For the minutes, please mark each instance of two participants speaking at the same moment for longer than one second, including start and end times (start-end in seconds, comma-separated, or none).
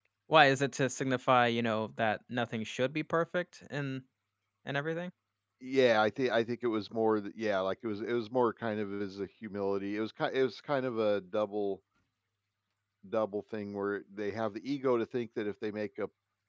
none